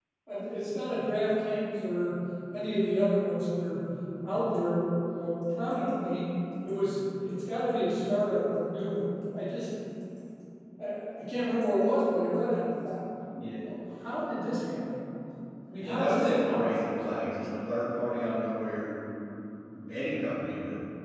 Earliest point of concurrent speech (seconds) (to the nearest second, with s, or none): 16 s